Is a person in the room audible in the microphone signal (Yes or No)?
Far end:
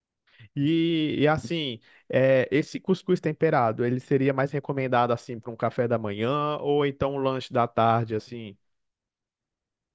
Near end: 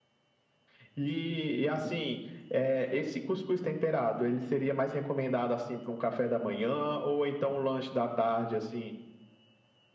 No